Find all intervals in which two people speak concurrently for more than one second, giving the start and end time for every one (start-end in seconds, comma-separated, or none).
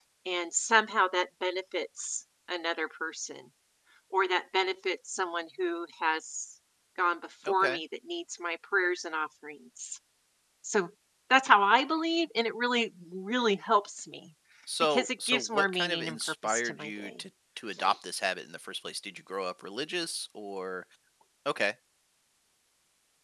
14.8-17.1